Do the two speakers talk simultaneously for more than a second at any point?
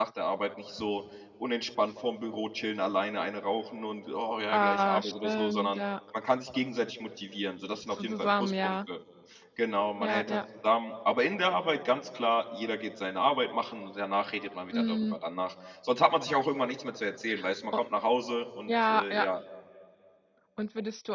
Yes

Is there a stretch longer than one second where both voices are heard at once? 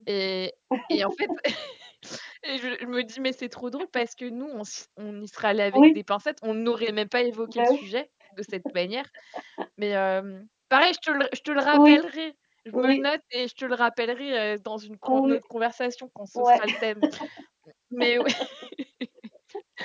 No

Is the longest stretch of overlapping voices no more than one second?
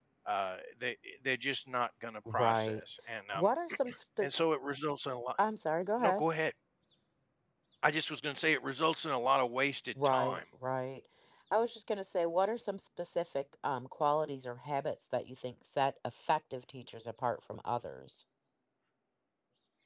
Yes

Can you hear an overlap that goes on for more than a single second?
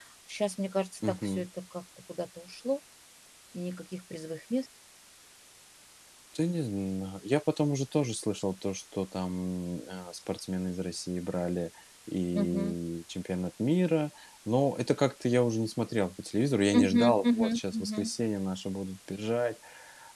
Yes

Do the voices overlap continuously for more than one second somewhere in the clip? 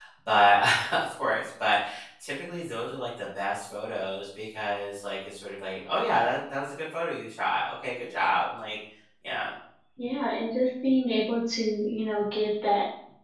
No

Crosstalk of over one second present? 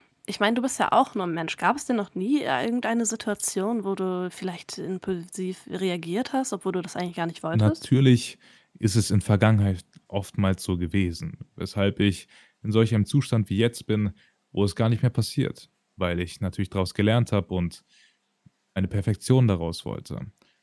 No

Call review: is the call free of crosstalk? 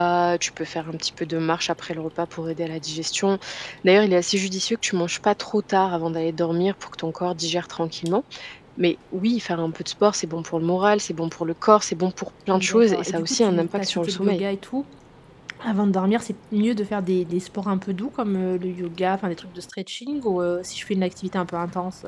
No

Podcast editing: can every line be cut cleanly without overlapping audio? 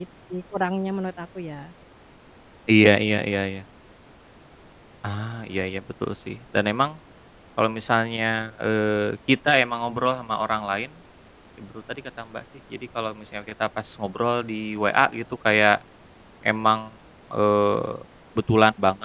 Yes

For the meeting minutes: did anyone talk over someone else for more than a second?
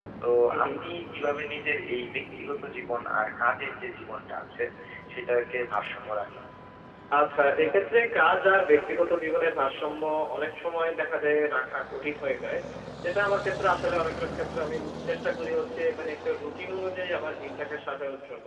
No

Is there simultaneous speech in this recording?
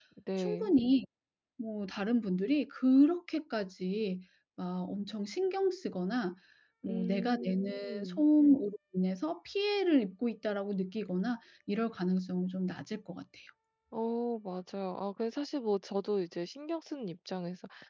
Yes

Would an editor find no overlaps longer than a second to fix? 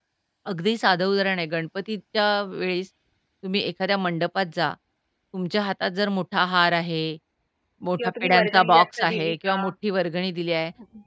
No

